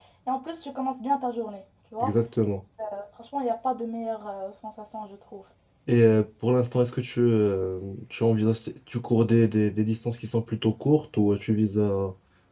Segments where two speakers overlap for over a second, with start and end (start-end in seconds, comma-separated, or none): none